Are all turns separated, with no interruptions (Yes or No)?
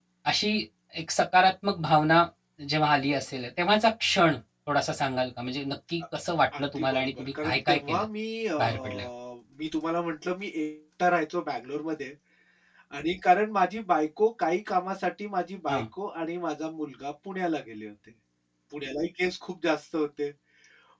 No